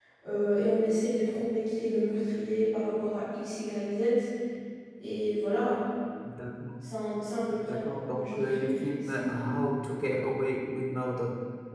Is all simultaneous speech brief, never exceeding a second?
No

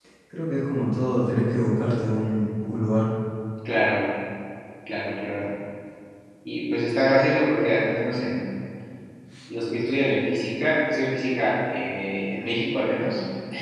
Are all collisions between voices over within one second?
Yes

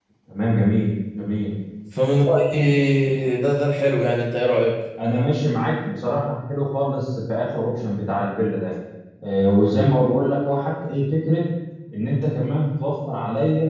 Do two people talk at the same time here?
No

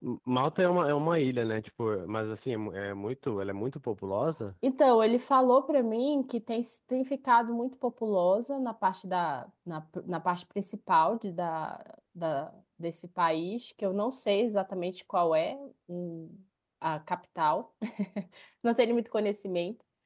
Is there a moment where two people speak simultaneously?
No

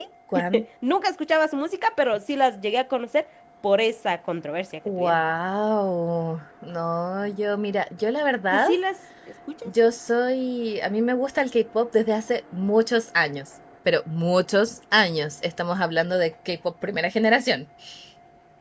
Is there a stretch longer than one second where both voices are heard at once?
No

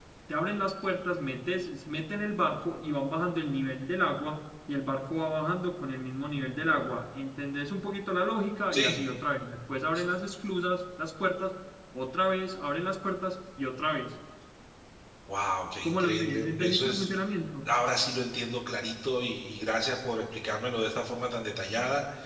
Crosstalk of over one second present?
Yes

